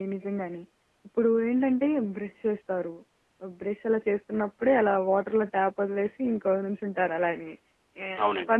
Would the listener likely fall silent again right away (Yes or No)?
Yes